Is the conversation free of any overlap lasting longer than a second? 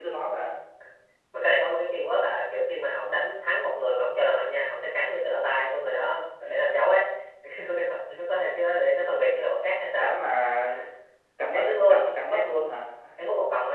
No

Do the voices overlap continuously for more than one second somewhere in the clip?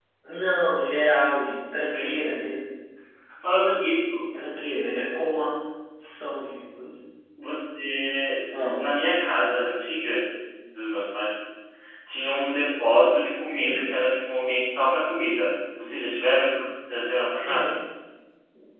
No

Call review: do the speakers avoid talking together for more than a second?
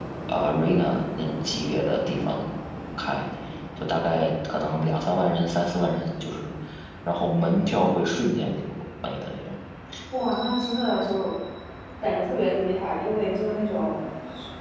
Yes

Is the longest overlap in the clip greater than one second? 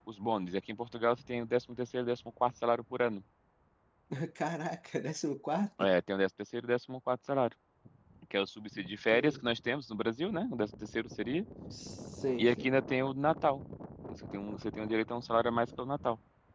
No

